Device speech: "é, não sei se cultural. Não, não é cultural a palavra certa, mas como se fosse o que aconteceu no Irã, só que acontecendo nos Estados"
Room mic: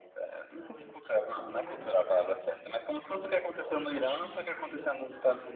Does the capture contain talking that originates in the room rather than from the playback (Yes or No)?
Yes